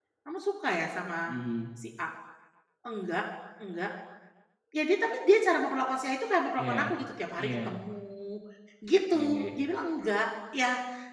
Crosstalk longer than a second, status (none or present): none